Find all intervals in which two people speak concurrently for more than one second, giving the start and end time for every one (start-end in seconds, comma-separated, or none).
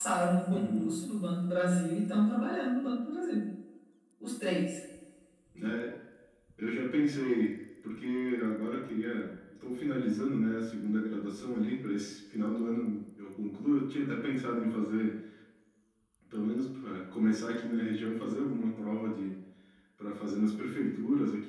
none